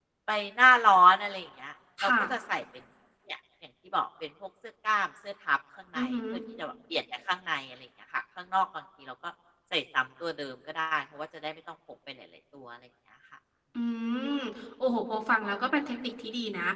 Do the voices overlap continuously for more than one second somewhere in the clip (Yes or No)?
No